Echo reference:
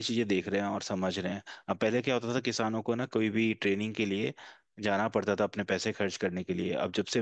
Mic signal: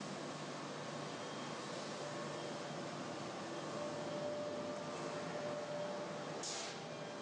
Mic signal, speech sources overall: neither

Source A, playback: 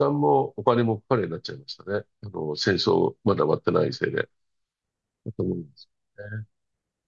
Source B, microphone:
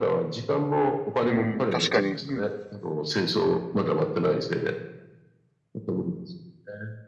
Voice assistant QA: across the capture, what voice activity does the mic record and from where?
both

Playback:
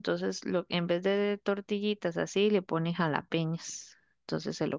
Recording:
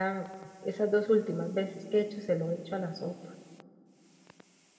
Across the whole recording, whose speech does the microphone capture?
user only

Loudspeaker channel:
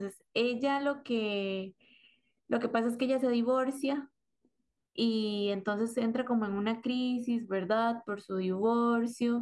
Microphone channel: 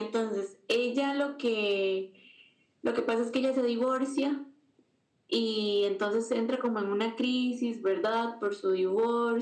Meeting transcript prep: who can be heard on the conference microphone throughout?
echo only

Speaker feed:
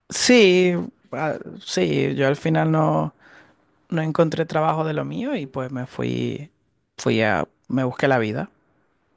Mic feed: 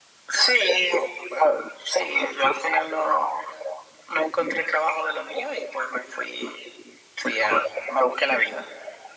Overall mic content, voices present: echo only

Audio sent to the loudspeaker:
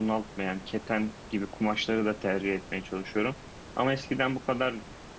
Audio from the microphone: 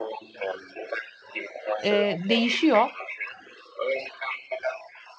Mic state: both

